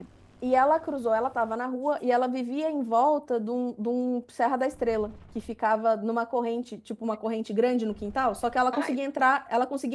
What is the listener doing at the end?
listening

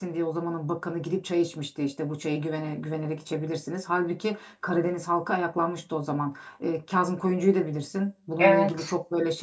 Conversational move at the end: listening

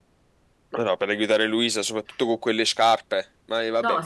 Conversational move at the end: taking over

